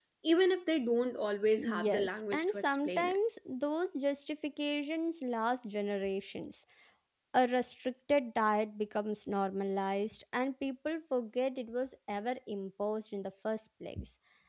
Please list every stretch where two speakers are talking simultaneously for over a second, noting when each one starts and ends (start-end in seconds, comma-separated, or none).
1.6-3.2